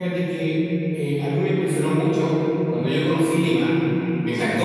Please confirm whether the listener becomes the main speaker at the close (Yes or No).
No